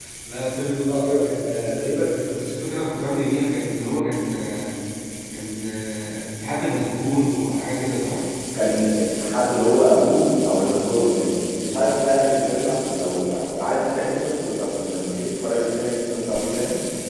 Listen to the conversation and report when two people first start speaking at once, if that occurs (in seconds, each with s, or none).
none